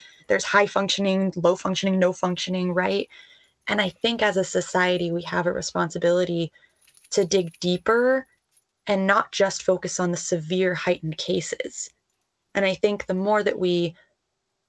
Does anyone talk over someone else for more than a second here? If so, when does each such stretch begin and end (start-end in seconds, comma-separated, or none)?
none